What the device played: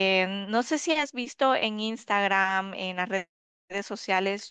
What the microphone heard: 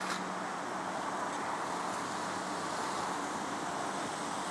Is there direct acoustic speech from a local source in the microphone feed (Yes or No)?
No